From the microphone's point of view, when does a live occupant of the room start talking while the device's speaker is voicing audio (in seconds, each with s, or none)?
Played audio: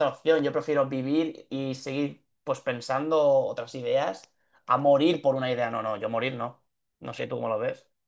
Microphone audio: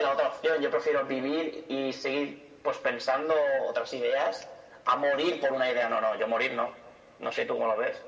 none